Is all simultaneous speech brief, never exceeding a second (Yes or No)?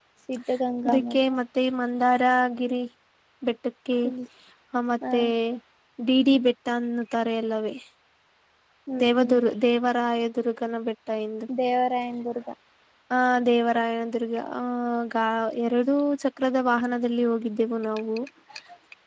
Yes